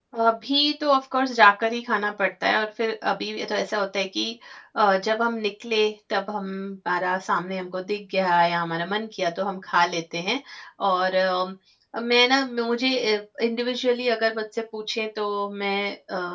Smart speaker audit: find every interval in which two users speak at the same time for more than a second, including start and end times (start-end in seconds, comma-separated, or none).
none